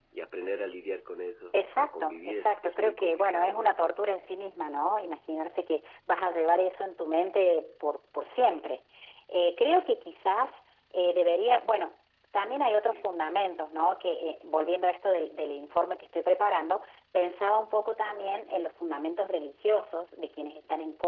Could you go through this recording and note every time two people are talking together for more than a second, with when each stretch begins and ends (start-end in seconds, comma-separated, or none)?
1.5-3.7